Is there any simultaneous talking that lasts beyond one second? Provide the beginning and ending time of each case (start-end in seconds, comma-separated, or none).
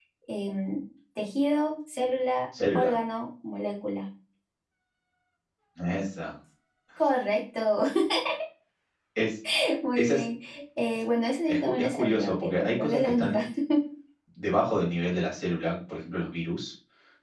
11.5-13.5